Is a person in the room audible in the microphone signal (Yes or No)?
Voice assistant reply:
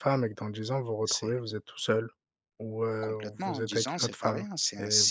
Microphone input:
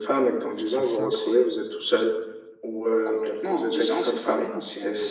Yes